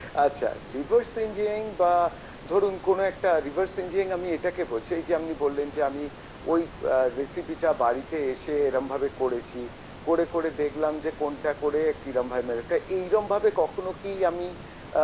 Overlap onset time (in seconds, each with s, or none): none